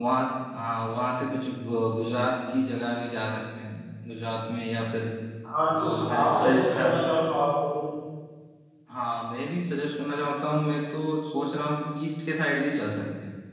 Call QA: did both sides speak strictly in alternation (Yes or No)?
No